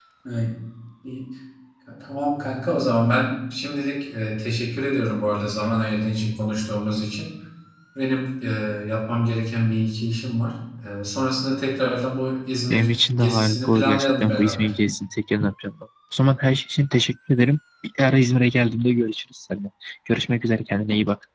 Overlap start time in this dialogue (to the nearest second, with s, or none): 13 s